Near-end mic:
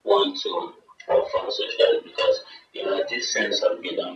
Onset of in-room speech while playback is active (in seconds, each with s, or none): none